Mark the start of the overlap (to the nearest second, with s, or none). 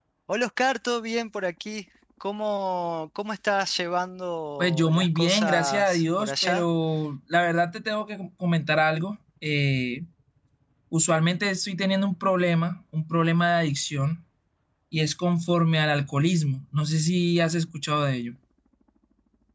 5 s